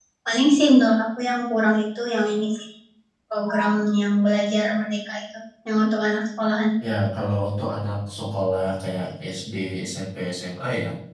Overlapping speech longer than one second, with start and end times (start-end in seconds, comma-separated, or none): none